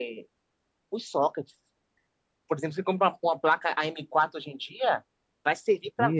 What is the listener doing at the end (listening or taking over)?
listening